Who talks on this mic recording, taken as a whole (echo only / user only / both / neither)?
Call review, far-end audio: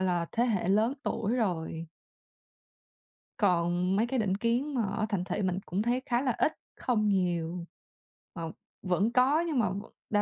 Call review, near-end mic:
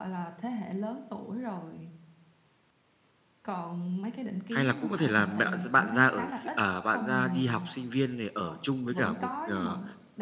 both